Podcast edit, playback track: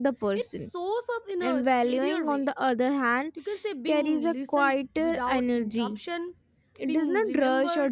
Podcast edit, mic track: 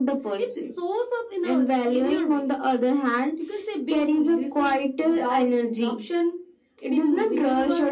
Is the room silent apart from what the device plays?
Yes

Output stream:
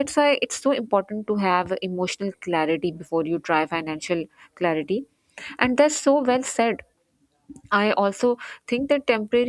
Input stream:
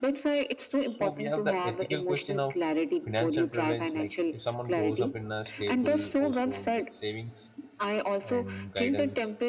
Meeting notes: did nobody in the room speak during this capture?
No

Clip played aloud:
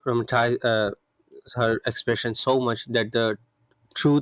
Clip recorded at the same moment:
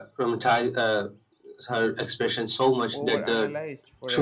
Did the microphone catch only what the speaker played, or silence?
No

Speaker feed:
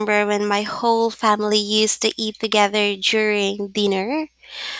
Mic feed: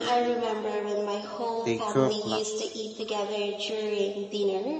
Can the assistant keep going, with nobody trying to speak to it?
No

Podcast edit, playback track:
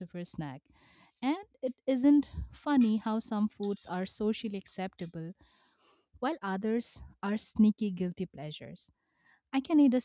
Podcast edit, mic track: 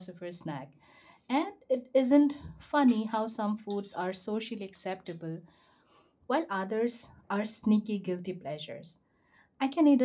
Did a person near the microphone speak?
No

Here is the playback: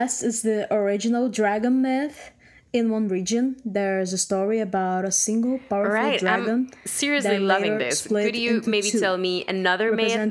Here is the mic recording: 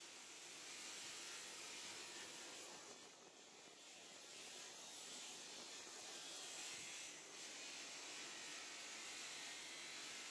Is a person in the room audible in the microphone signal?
No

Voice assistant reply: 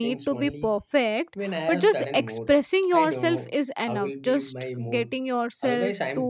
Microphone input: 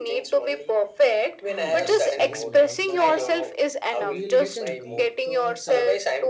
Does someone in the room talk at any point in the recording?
Yes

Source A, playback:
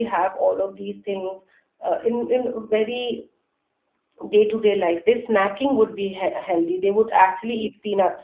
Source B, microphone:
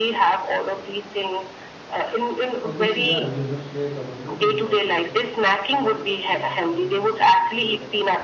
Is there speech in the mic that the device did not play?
Yes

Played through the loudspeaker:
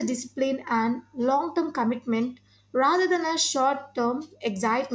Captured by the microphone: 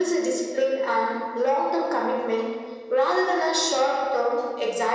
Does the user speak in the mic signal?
No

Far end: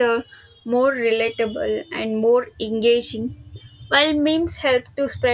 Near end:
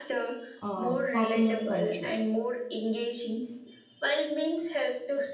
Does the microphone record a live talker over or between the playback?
Yes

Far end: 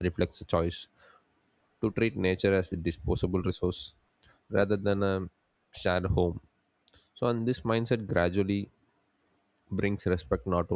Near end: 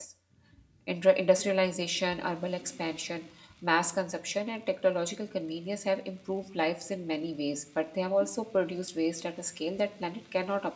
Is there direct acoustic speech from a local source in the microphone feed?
Yes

